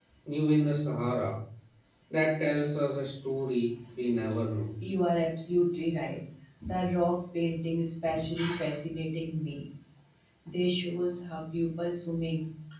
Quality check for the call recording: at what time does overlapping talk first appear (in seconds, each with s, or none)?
none